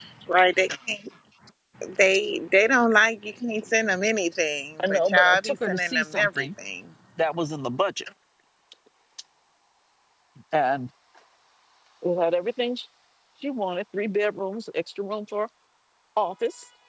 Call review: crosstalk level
present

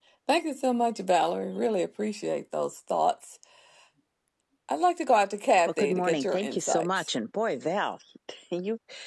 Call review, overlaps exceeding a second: present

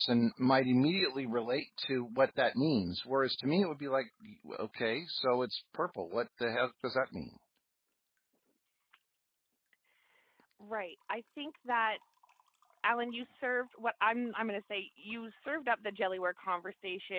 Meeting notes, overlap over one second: none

